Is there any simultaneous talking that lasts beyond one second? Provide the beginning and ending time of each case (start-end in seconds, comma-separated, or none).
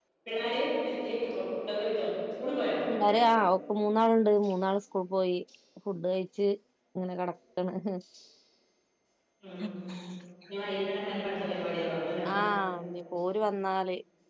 none